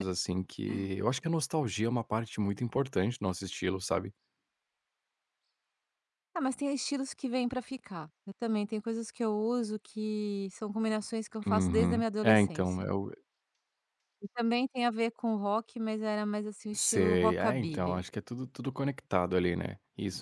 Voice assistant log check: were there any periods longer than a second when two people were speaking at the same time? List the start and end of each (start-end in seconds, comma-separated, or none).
11.5-12.9, 16.7-18.0